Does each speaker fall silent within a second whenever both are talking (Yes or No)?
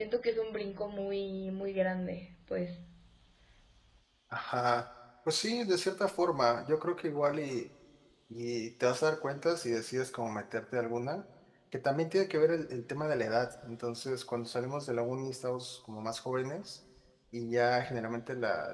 Yes